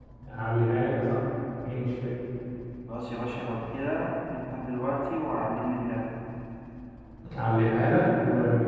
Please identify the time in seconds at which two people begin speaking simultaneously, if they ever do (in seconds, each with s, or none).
none